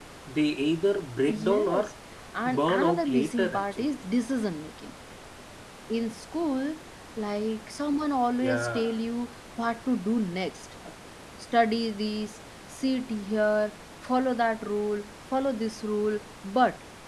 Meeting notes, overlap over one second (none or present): present